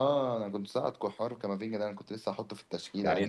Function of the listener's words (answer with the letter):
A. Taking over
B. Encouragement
A